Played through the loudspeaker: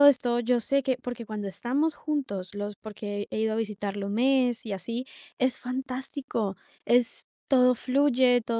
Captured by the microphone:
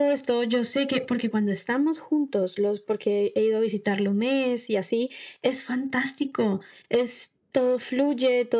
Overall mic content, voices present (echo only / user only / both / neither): echo only